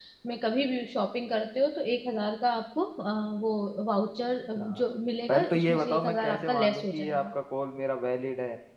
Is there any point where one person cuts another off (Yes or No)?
Yes